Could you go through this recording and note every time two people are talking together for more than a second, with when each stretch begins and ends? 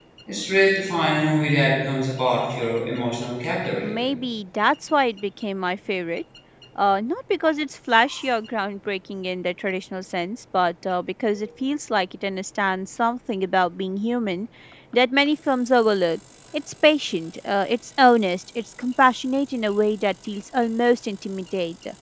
none

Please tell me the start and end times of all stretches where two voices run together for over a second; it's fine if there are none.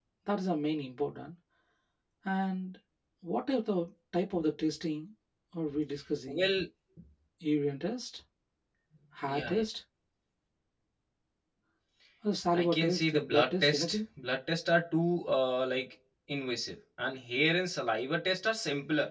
12.5-14.0

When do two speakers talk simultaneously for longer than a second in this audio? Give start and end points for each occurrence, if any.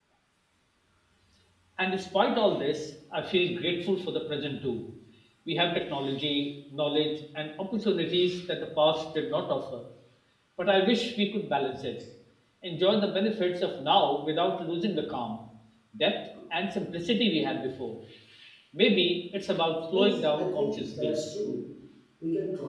19.9-21.2

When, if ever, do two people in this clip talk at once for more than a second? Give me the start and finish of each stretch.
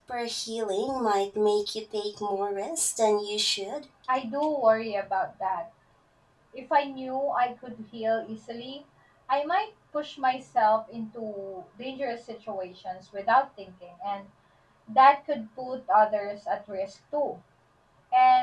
none

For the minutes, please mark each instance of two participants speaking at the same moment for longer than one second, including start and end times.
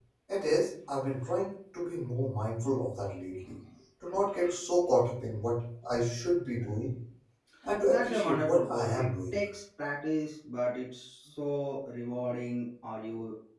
7.9-9.3

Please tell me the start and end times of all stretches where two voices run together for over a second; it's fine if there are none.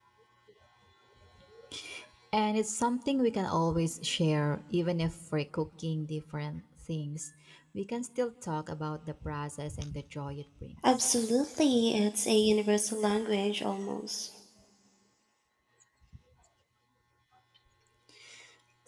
none

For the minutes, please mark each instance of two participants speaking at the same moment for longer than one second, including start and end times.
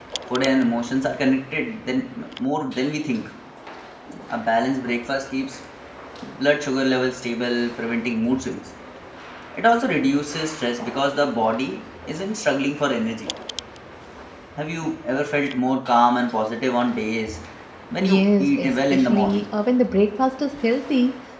18.0-19.4

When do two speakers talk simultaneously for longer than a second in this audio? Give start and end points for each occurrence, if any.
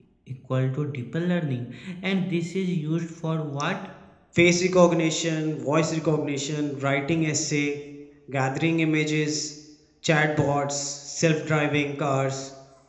none

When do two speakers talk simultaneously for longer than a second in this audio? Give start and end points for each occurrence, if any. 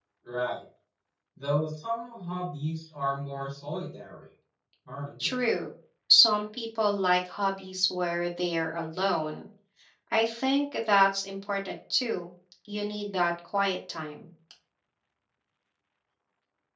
none

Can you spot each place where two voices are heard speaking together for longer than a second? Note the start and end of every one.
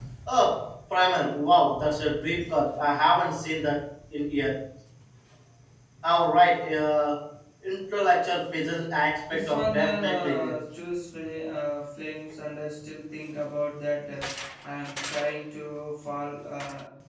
9.3-10.6

